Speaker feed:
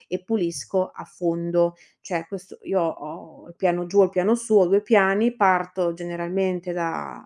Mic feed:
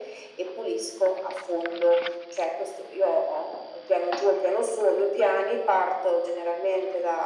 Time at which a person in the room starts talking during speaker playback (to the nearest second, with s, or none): none